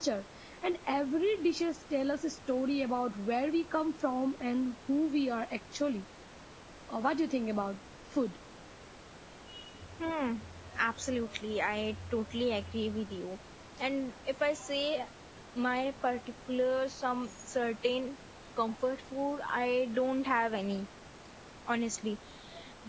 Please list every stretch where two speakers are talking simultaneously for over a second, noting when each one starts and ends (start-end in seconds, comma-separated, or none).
none